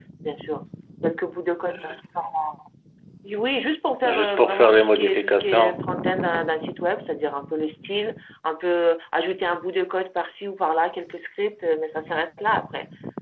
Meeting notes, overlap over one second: present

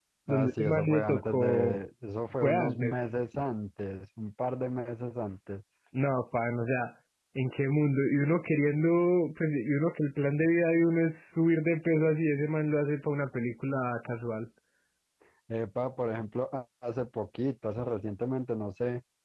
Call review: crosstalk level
present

